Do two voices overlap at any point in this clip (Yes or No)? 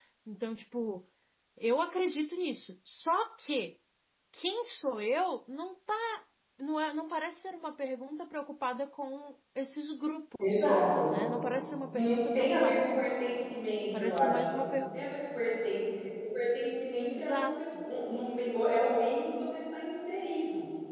Yes